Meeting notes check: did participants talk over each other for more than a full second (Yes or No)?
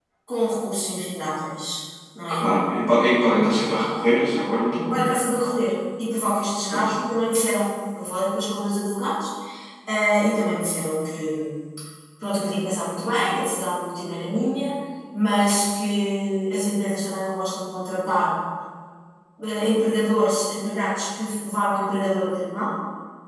No